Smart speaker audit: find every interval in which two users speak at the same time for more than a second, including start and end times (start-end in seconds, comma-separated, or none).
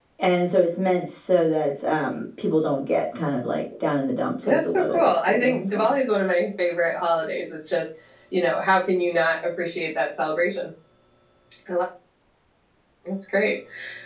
4.5-5.9